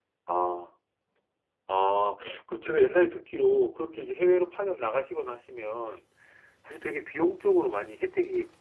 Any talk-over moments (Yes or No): No